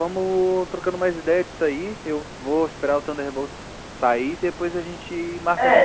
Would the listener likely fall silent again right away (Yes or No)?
No